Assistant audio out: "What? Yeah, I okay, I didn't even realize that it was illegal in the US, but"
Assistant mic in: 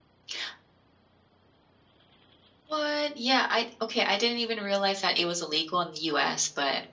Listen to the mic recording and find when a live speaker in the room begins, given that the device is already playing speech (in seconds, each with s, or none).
none